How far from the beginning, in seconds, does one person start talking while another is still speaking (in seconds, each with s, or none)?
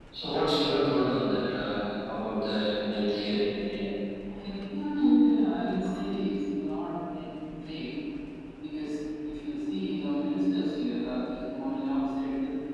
none